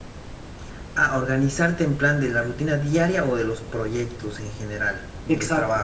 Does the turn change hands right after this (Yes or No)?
Yes